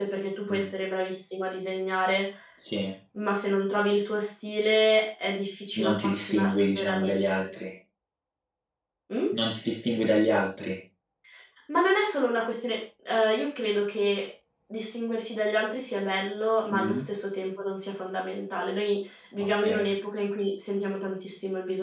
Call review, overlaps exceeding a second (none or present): present